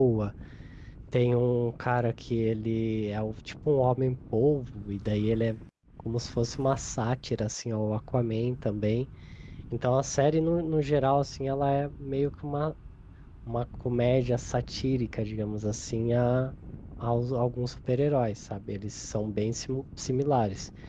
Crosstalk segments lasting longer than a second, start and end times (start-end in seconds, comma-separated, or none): none